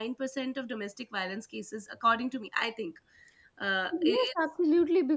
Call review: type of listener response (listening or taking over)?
taking over